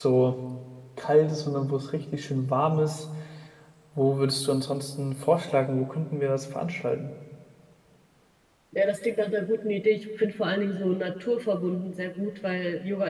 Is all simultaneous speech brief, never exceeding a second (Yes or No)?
Yes